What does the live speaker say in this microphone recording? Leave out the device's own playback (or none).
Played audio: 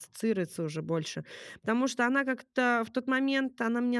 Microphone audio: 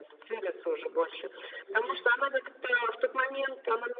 Мгм.